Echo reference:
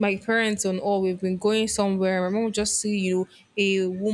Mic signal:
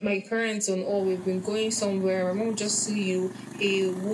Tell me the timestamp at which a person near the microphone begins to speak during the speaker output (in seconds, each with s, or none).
none